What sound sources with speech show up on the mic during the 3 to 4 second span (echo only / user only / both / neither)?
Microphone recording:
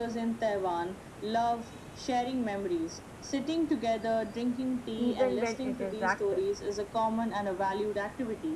echo only